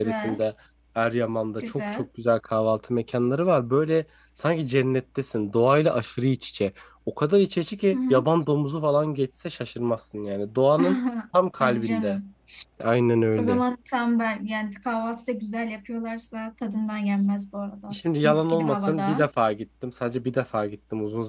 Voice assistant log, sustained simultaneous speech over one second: present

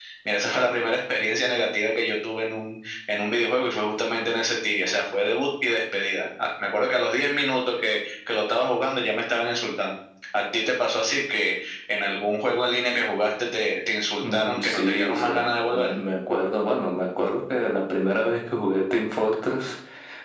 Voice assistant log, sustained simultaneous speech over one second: present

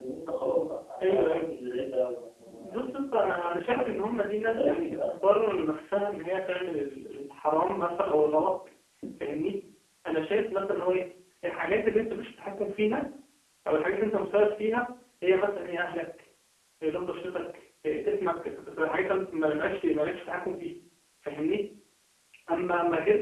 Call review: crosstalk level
present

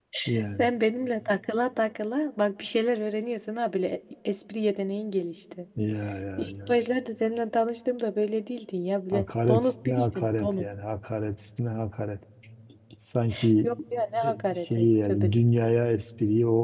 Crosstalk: present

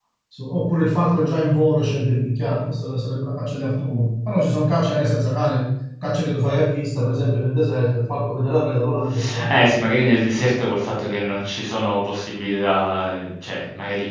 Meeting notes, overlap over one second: none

